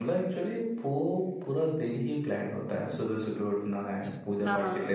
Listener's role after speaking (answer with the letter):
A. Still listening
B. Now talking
A